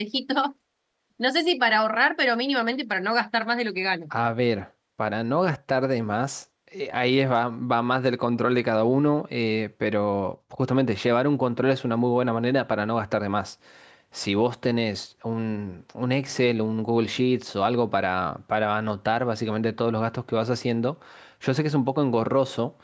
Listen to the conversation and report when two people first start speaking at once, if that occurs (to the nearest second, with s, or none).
none